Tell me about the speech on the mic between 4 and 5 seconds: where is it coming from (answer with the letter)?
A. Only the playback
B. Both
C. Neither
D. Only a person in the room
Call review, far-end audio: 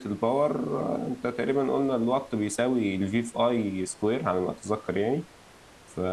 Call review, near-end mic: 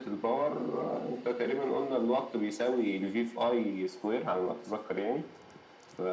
A